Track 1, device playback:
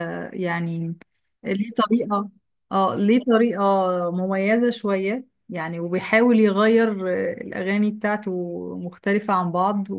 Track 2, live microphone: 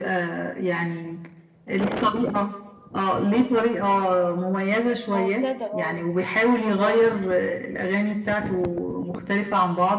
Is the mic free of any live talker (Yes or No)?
No